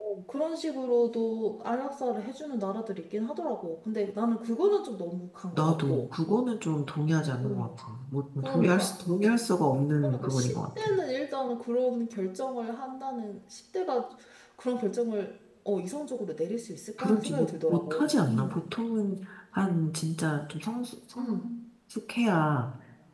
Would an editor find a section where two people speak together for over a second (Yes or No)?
Yes